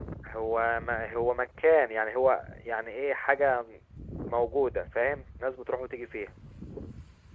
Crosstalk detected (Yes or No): No